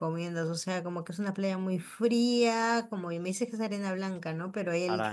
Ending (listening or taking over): listening